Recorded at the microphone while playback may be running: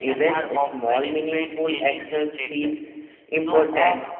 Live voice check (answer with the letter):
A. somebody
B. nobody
A